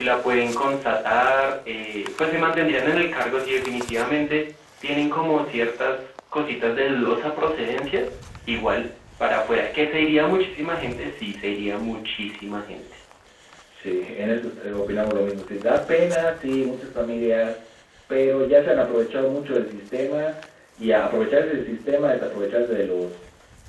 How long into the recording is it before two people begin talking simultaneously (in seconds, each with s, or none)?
none